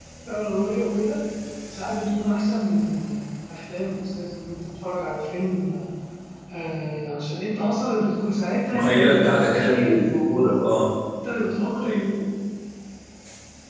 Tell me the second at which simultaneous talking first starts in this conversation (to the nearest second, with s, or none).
9 s